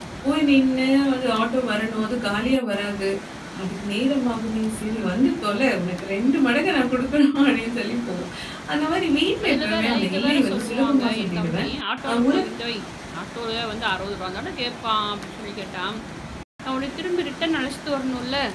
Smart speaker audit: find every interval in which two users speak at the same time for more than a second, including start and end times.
9.4-11.7

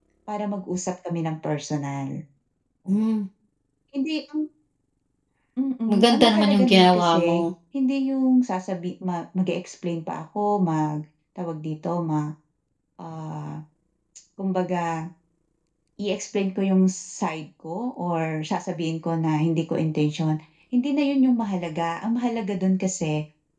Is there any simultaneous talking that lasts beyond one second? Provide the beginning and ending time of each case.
5.9-7.4

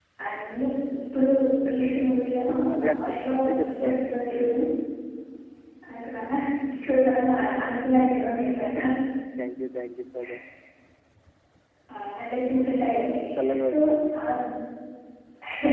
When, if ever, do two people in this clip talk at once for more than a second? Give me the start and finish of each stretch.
2.8-4.5

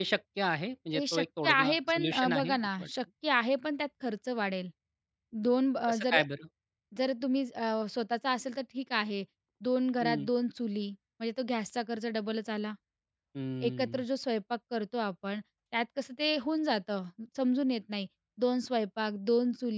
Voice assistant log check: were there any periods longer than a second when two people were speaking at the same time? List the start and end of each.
1.0-2.9

